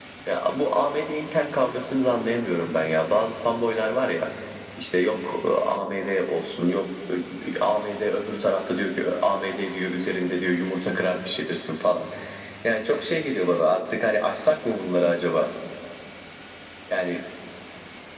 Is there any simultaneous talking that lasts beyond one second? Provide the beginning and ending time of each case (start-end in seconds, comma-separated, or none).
none